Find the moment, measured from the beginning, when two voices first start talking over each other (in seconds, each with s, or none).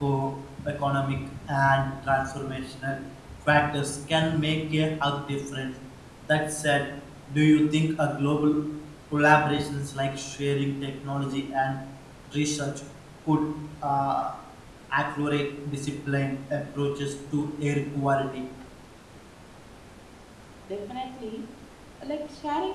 none